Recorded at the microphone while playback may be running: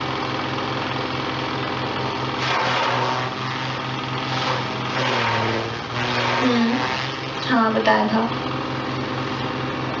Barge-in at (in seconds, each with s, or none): 6.4 s